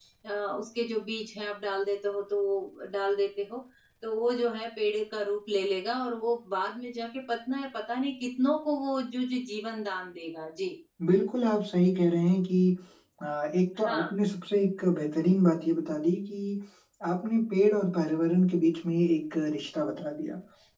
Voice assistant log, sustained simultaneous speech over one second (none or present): none